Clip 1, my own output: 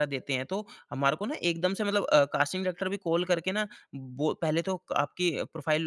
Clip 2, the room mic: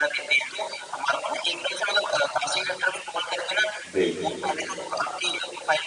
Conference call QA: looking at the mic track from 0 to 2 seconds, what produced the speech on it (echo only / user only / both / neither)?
echo only